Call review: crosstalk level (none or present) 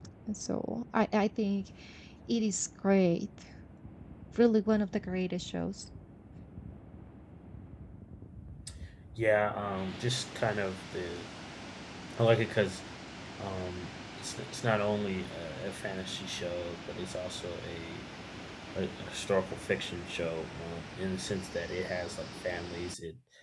none